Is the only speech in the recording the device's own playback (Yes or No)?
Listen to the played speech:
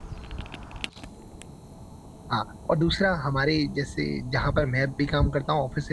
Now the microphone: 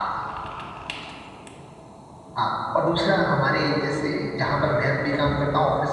Yes